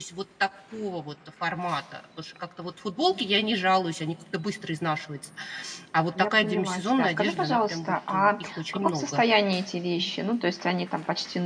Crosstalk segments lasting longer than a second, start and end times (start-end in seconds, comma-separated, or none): 6.2-9.2